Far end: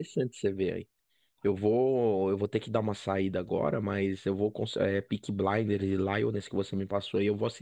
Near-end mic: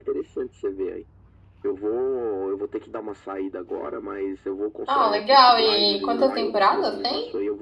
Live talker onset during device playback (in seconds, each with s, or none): 4.8 s